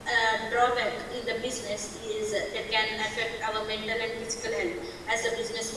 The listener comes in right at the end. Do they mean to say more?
No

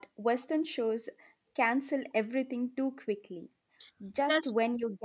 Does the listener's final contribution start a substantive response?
No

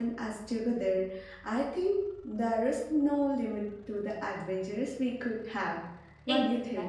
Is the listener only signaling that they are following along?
No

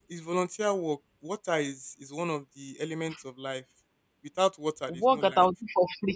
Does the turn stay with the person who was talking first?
No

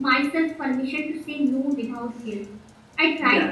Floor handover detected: No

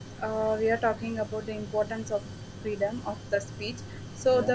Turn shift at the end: No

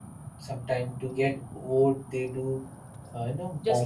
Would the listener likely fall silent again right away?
No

